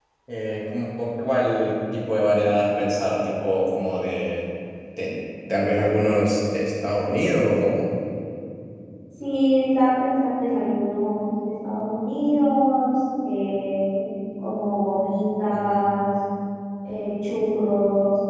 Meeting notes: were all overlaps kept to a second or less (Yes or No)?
Yes